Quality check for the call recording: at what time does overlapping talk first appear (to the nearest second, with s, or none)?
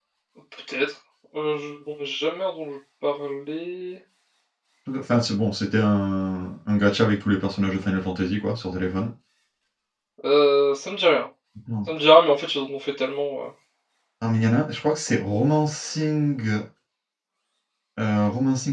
none